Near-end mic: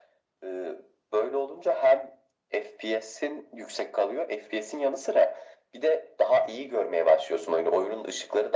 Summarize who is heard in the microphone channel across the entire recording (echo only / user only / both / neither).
echo only